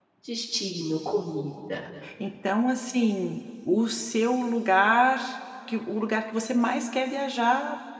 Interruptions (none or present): none